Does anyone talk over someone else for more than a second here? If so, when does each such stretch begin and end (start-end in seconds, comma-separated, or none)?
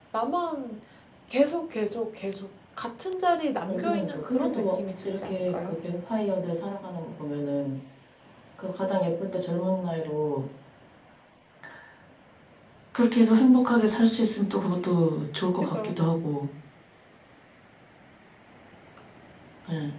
3.7-5.8